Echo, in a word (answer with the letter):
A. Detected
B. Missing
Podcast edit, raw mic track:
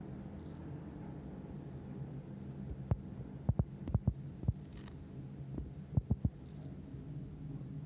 B